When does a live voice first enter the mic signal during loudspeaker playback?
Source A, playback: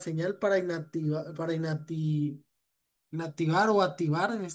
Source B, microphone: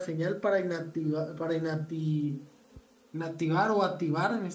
none

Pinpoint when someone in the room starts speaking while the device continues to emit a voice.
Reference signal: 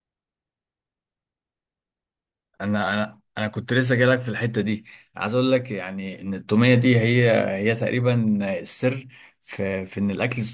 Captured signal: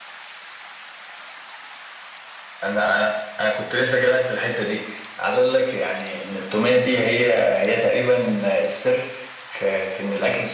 none

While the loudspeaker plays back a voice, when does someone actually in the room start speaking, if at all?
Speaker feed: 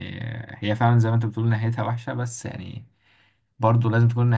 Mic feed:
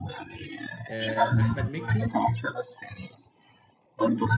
0.9 s

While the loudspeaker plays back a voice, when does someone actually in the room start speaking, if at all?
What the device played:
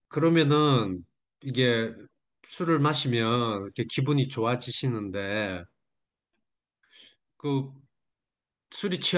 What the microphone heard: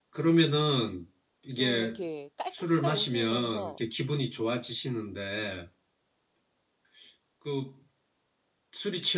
1.5 s

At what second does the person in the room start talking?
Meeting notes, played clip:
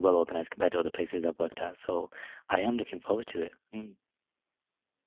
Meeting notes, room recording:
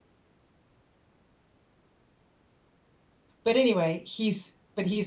3.4 s

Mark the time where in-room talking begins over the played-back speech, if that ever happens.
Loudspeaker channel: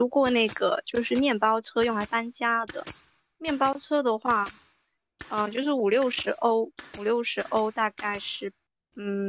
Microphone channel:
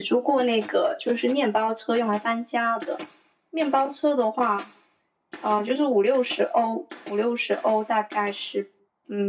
none

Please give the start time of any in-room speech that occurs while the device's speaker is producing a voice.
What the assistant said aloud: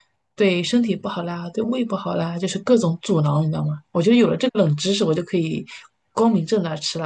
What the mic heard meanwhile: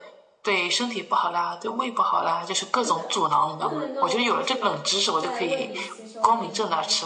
2.8 s

